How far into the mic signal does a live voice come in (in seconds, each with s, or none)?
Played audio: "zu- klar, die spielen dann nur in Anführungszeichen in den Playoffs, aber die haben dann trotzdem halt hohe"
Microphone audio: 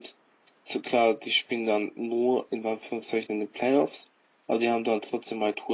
none